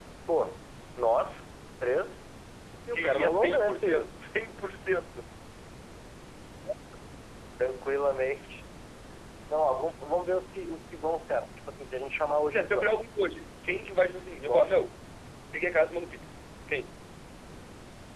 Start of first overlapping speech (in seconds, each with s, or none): 2.9 s